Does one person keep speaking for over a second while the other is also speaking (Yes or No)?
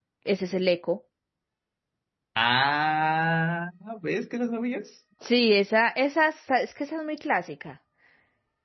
No